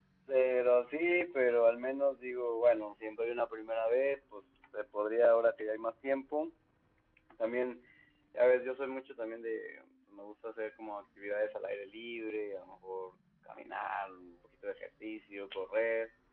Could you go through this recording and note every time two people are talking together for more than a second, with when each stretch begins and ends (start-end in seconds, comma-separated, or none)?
none